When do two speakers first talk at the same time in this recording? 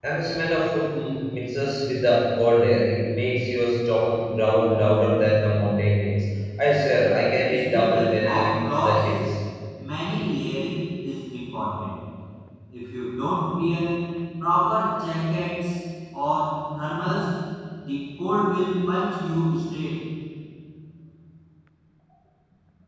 7.5 s

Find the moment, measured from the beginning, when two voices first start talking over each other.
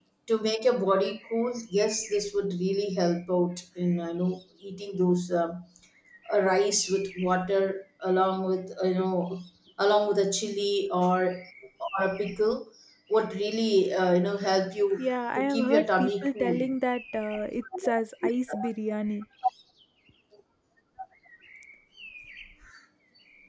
15.4 s

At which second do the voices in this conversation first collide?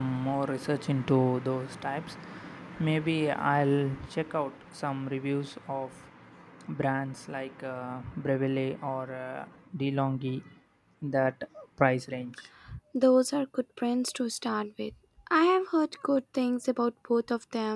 none

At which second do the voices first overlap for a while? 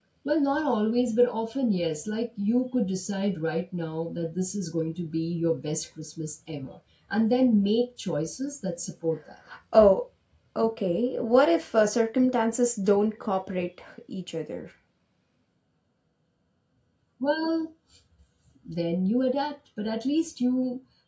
none

